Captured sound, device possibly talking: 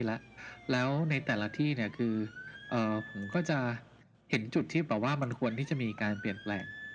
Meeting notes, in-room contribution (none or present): none